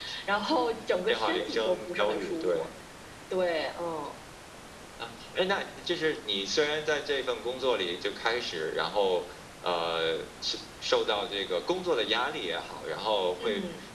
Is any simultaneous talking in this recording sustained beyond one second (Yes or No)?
Yes